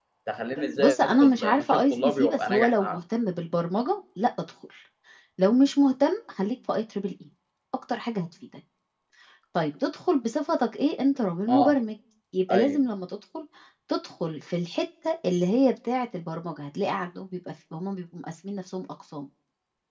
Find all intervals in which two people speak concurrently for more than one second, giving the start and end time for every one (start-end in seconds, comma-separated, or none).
0.8-3.0